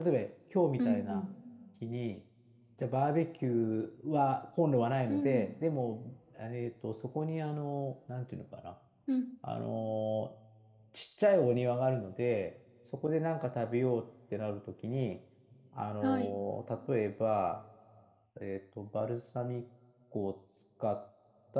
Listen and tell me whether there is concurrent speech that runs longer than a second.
No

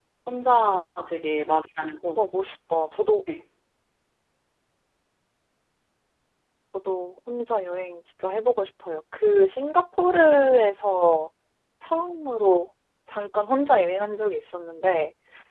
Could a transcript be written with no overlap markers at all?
Yes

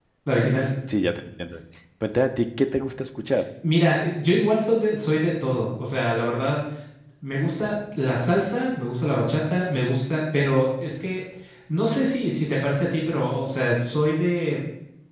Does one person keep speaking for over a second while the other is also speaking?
No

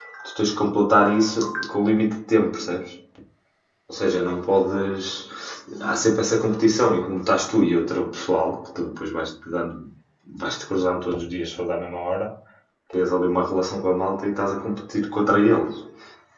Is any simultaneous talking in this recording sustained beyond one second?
No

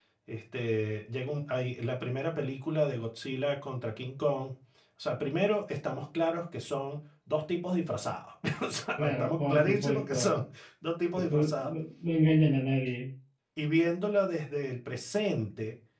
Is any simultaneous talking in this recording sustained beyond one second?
Yes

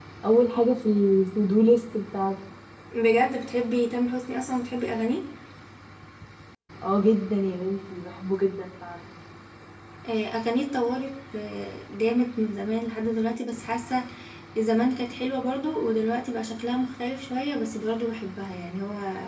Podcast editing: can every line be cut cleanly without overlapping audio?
Yes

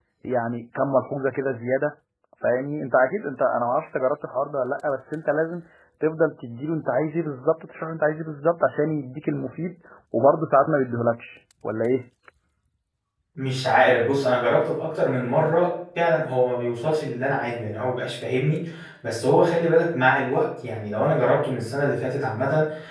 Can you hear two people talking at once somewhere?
No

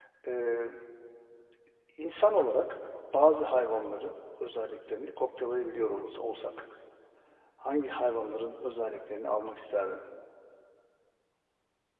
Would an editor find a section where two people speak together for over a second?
No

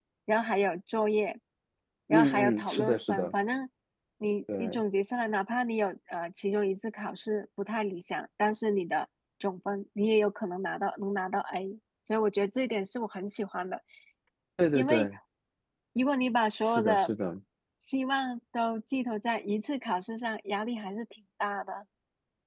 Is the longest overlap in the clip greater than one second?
Yes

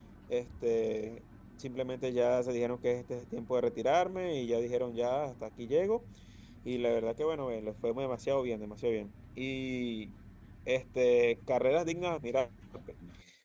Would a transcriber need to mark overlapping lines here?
No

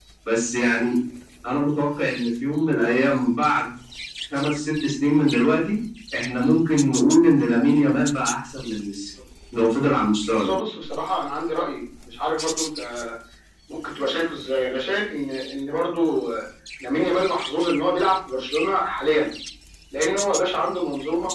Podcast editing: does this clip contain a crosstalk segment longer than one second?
No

